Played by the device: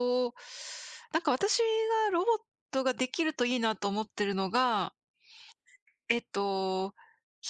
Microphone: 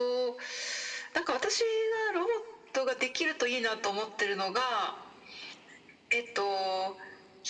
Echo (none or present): present